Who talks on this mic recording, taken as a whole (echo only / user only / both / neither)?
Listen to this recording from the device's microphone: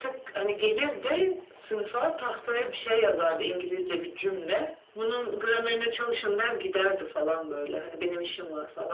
echo only